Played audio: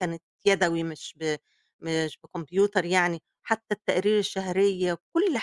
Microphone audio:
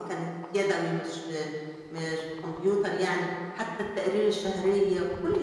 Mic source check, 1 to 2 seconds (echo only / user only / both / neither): echo only